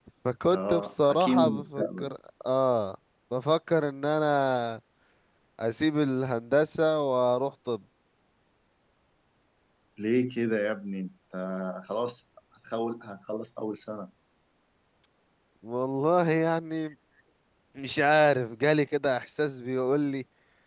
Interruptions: present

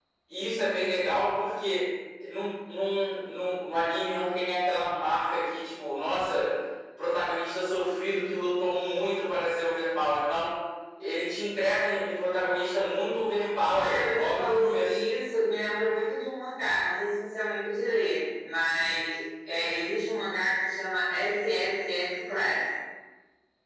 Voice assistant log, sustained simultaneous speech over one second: present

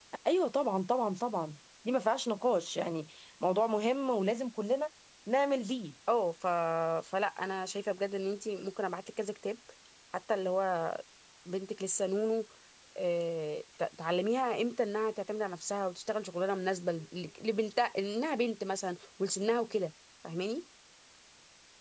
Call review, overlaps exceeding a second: none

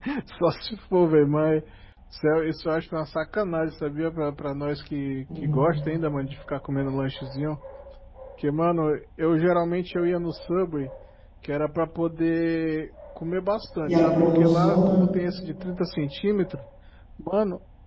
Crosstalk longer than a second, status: present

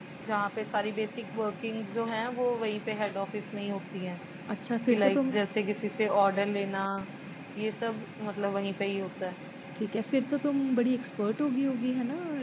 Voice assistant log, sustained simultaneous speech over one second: none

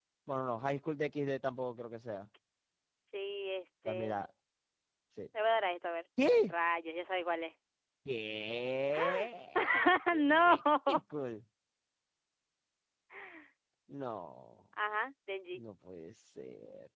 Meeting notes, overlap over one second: none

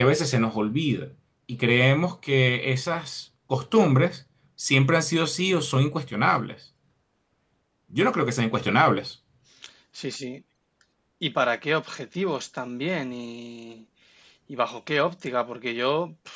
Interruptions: none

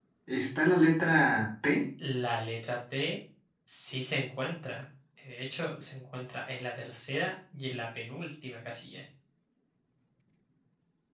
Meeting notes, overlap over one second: none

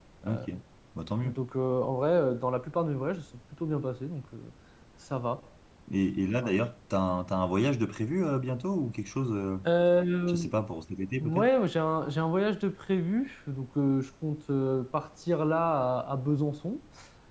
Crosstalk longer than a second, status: none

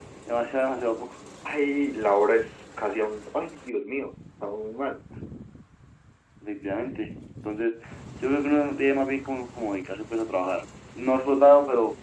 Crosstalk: none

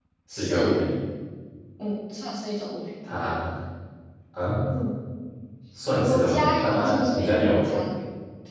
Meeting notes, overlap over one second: present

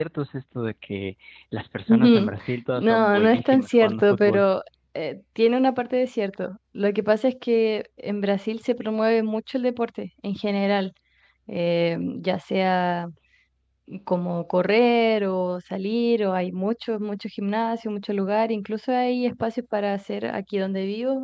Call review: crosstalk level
present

